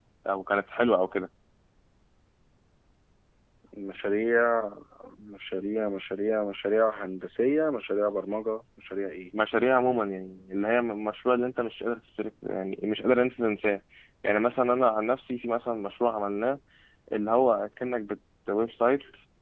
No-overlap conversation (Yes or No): Yes